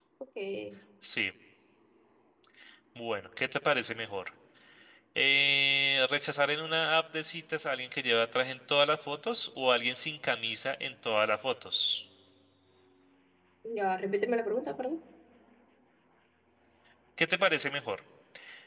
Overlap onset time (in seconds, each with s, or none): none